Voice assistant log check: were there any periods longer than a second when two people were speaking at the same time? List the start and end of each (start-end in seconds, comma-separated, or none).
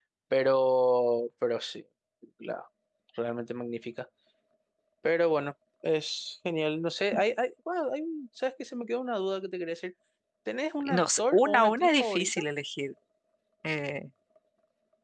10.8-12.4